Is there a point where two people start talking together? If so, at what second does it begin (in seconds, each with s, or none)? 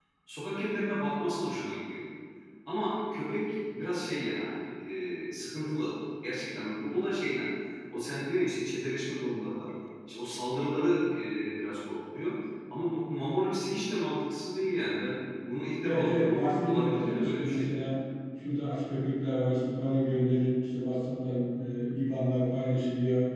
15.8 s